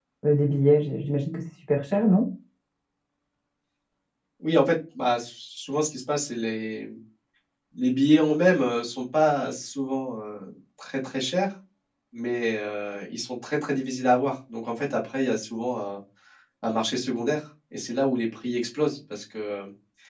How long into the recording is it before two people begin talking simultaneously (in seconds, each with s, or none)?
none